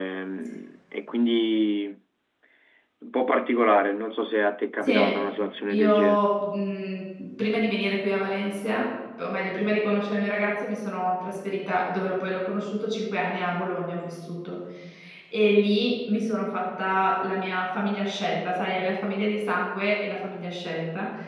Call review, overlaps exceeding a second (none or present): none